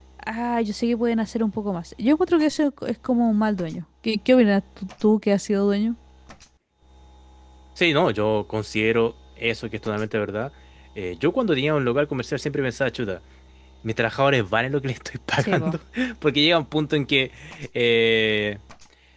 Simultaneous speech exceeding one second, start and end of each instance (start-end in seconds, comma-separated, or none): none